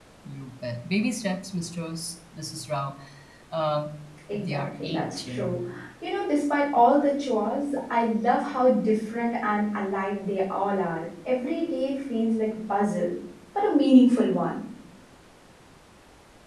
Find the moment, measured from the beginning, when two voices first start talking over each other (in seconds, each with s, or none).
4.3 s